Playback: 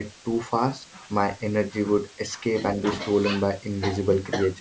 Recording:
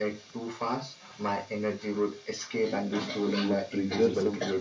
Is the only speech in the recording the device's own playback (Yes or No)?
No